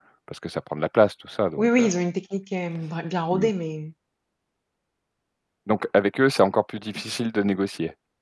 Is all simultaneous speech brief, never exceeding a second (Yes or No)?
Yes